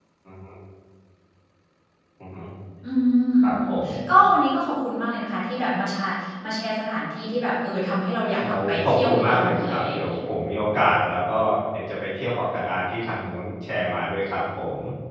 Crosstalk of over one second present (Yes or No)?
Yes